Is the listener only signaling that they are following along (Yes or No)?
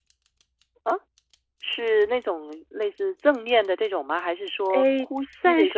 No